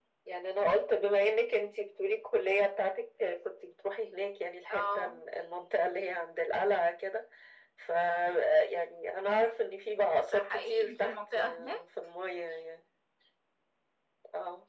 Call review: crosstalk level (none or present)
present